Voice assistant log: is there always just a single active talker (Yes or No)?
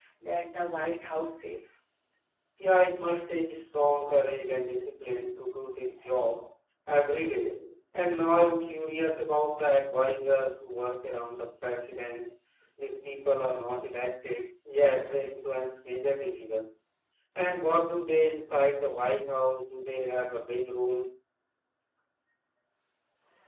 Yes